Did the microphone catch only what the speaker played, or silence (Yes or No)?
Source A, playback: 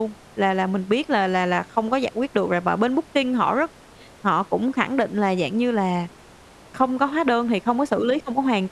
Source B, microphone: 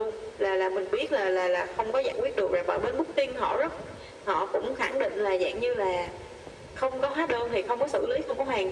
Yes